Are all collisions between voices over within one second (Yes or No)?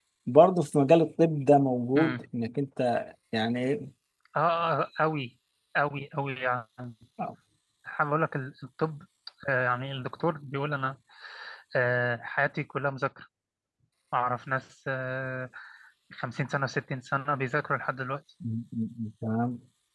Yes